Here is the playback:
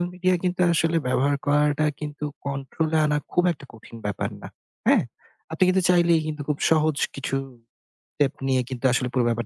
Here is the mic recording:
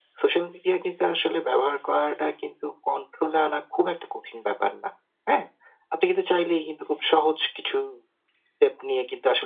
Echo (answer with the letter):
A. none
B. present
B